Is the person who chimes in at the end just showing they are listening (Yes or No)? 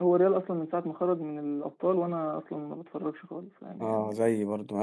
No